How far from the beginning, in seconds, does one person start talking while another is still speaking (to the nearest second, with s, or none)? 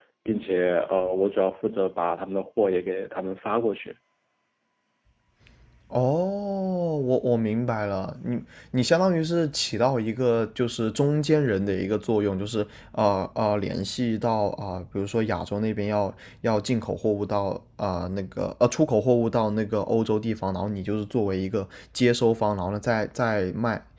none